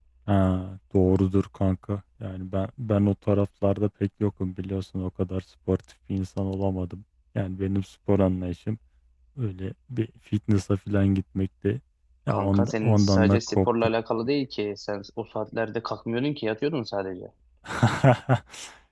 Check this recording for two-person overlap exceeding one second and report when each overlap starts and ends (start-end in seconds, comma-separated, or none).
12.3-13.7